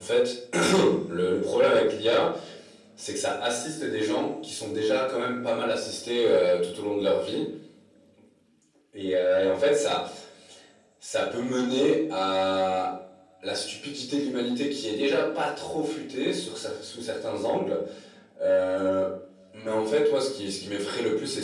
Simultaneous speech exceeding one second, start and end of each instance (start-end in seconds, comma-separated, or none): none